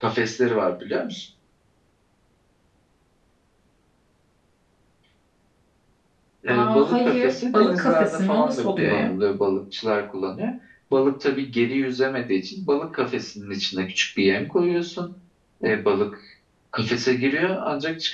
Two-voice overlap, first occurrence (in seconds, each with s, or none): 6.5 s